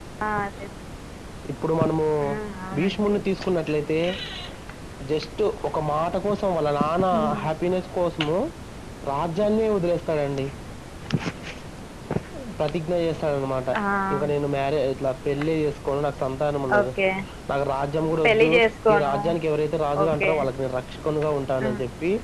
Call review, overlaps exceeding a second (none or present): none